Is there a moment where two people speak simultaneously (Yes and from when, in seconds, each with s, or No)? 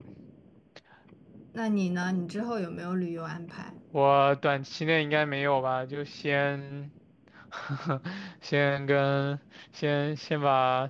No